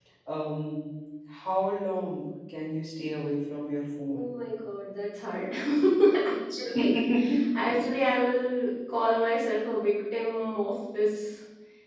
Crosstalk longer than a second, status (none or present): none